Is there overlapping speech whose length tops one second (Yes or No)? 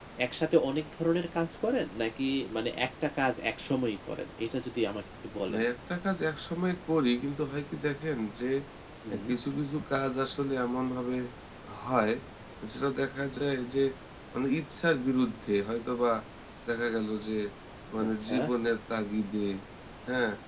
No